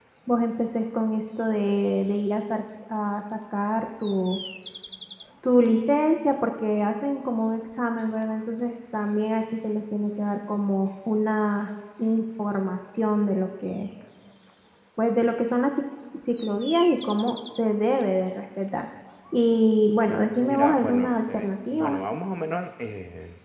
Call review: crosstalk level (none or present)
present